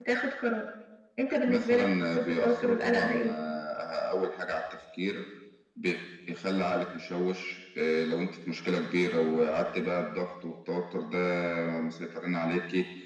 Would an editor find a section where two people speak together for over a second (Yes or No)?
Yes